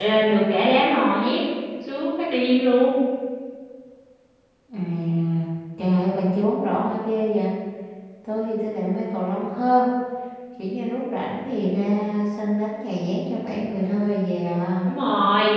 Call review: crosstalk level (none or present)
none